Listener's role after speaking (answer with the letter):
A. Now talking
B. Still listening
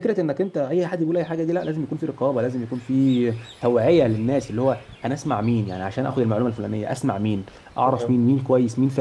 B